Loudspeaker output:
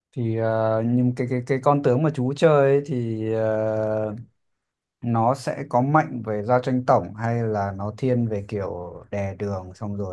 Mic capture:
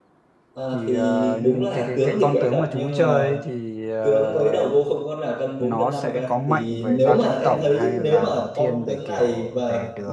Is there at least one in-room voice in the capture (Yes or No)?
Yes